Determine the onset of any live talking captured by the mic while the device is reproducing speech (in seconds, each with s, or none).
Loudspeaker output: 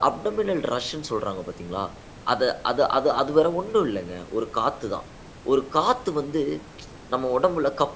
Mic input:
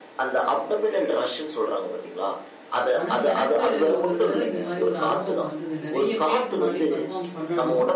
3.0 s